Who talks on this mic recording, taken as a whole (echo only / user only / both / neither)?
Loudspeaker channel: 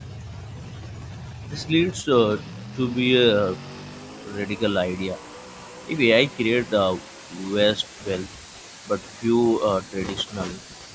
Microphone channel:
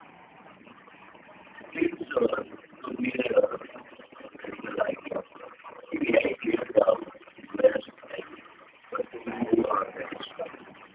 both